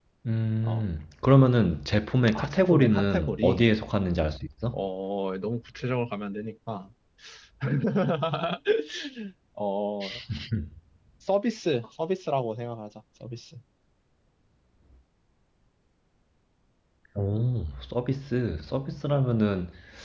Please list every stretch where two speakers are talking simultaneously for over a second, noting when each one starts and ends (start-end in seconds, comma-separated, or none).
2.3-3.6